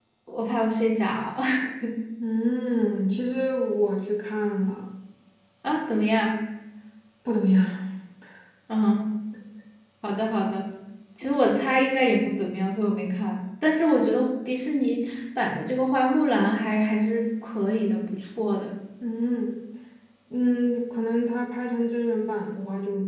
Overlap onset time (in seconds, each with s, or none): none